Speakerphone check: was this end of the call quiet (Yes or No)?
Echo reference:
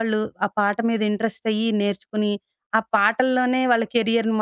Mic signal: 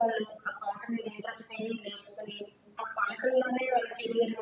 Yes